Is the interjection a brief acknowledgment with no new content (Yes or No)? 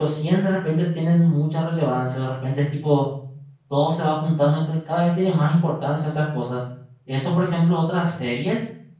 Yes